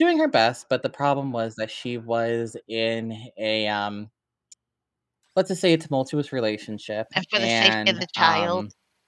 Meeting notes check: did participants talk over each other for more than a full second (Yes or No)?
Yes